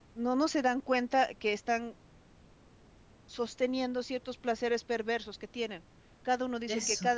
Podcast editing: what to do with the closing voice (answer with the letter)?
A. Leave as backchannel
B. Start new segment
A